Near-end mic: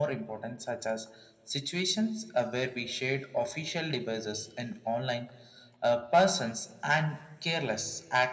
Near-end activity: none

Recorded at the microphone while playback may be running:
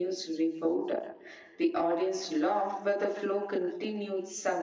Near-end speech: none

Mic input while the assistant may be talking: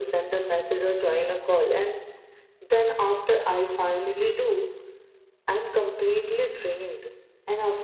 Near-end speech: none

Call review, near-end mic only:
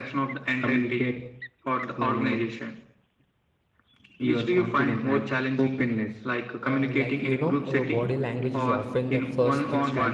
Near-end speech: present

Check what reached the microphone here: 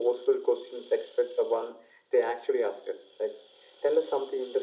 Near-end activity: none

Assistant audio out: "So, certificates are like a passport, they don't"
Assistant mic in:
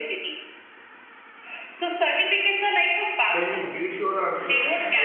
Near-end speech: present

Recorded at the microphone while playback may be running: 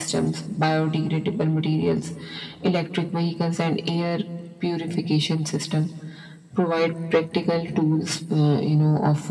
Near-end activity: none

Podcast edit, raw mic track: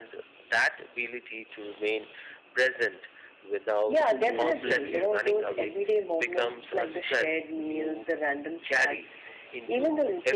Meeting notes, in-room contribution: present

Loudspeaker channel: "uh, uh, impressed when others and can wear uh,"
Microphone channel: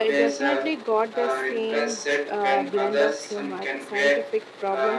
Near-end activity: present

